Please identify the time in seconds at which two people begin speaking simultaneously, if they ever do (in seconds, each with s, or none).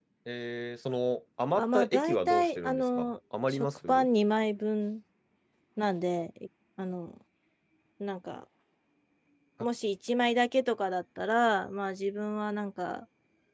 1.6 s